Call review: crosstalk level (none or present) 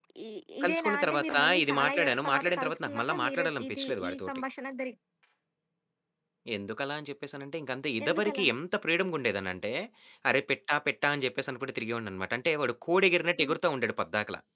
present